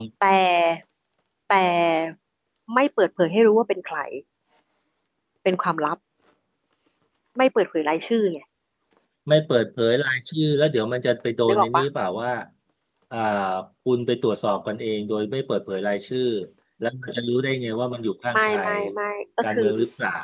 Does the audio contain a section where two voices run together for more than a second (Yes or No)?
No